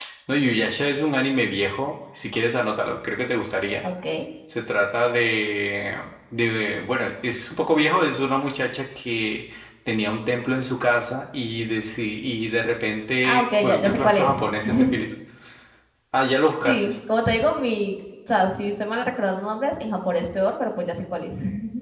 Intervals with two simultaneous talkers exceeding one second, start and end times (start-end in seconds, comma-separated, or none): 13.2-14.4